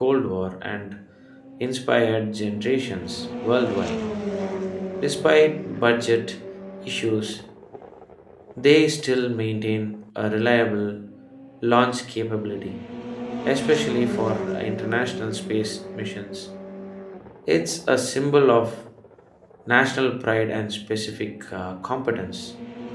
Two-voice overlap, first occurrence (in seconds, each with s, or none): none